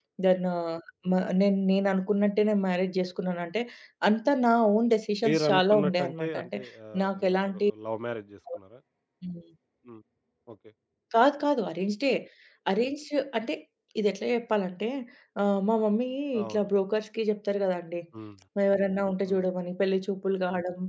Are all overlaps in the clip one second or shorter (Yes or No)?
No